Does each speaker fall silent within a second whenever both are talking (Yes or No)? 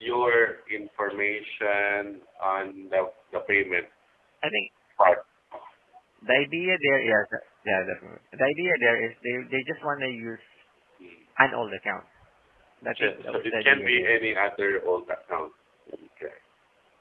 No